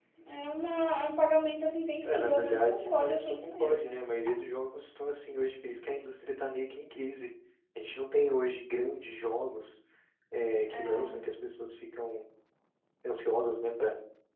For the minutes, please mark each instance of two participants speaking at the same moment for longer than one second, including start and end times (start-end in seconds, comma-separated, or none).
2.0-3.9